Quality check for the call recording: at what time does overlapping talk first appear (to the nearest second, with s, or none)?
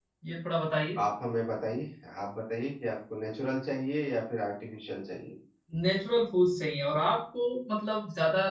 none